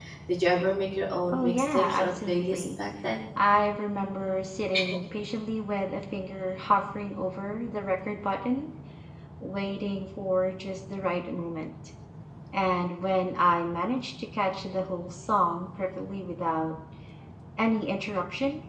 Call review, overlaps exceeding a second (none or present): present